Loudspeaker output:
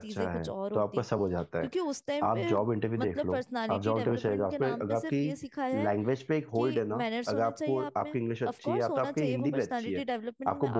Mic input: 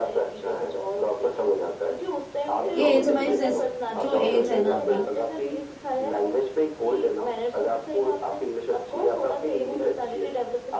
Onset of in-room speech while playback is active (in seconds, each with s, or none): 2.7 s